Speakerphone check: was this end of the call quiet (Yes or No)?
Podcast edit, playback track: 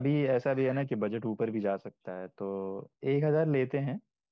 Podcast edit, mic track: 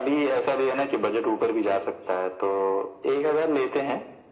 Yes